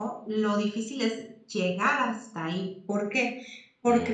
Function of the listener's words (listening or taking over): listening